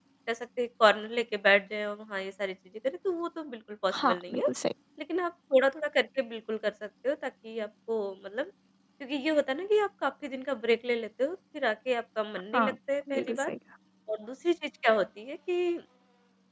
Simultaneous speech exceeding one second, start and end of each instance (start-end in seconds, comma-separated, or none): none